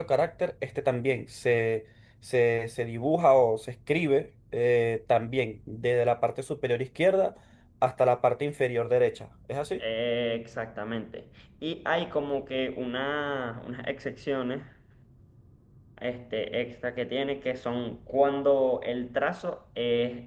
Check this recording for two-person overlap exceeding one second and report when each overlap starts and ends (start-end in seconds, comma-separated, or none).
none